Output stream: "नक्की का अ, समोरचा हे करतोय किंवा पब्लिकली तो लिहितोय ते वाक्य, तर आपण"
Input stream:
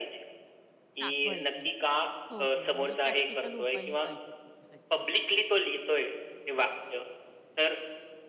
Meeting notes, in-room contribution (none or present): present